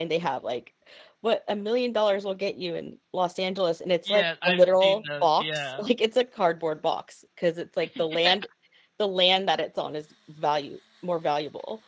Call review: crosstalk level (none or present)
present